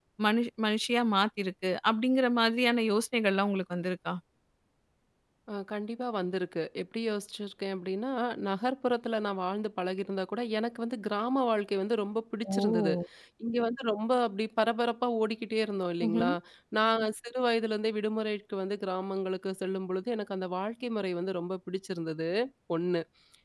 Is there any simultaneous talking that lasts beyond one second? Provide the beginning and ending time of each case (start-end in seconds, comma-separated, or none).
none